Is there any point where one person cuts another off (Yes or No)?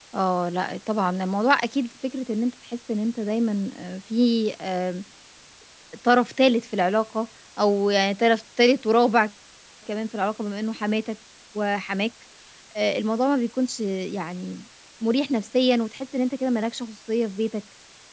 No